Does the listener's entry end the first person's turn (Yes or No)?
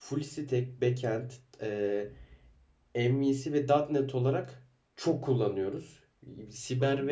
No